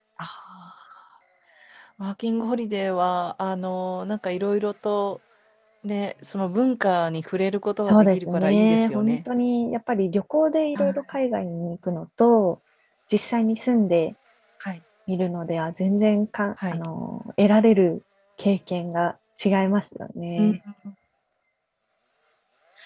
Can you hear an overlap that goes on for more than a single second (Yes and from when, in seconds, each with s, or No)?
Yes, from 7.8 s